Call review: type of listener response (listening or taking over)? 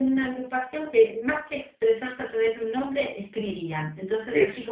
listening